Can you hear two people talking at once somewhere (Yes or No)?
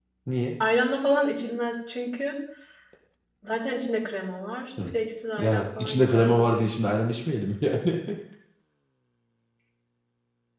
Yes